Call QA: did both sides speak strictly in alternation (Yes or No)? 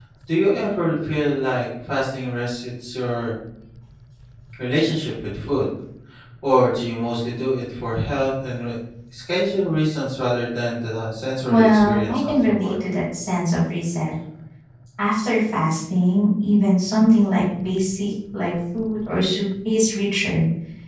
No